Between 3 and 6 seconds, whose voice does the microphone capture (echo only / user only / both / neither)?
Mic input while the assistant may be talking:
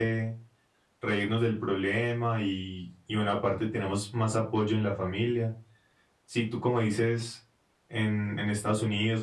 user only